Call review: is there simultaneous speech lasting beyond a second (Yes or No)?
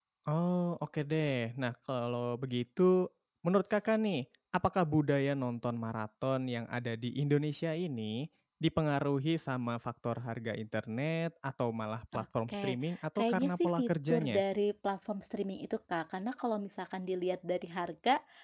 Yes